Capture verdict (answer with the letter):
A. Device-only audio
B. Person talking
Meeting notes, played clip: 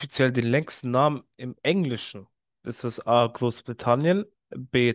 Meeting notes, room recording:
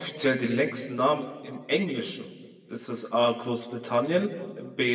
A